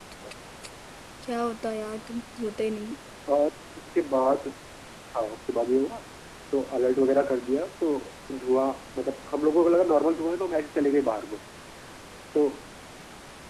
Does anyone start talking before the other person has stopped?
No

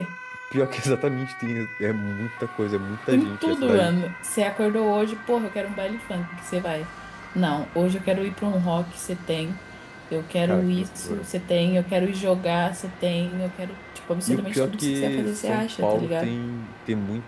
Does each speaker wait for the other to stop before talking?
No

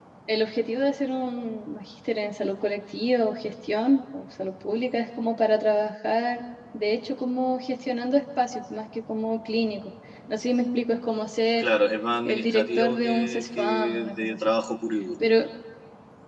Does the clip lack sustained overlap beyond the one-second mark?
No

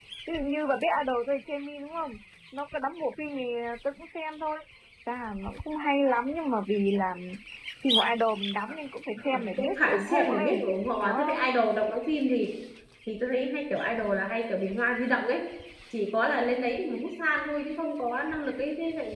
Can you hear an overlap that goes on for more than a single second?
Yes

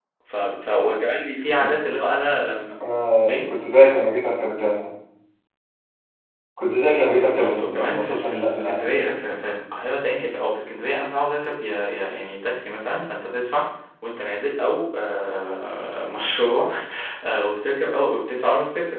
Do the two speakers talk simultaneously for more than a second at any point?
Yes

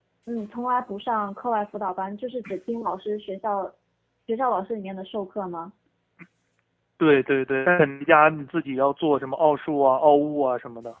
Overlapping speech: No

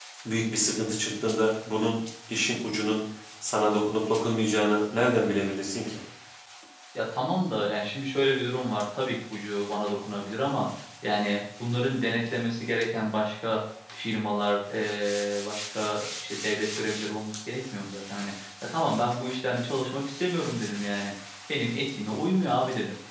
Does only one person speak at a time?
Yes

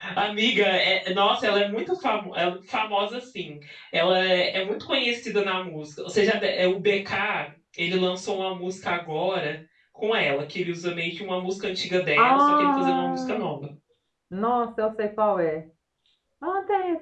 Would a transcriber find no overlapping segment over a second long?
No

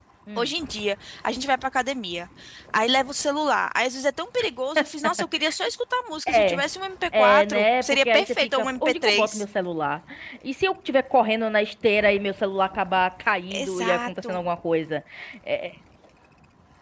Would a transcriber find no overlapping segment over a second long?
No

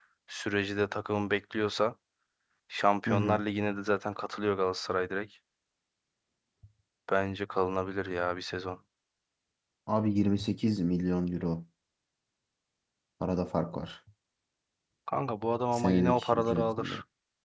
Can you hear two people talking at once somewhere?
Yes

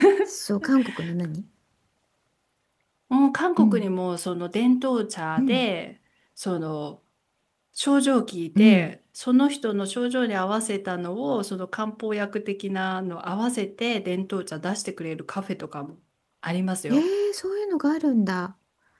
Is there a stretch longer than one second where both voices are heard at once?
No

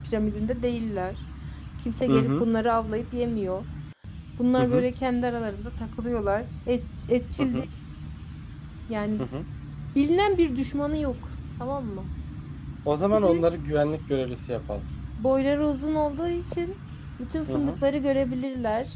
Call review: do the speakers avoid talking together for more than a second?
Yes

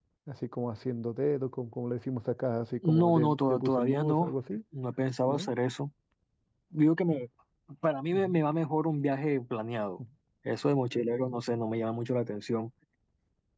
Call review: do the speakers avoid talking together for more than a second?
No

